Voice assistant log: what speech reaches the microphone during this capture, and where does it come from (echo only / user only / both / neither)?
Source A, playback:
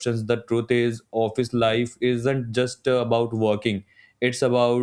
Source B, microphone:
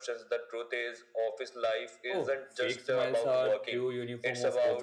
both